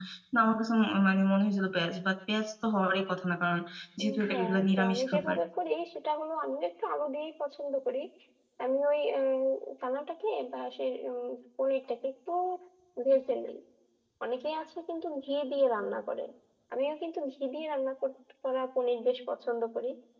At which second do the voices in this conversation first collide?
4.0 s

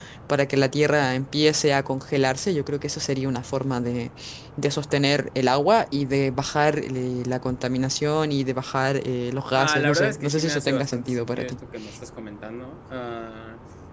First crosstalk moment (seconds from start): 9.6 s

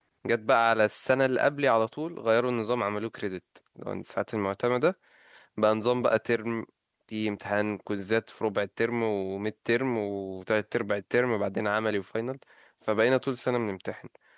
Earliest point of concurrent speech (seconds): none

